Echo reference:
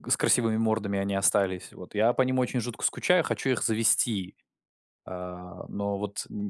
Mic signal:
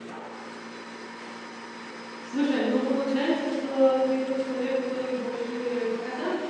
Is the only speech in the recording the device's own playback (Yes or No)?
No